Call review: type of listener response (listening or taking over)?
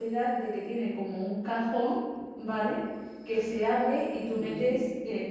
listening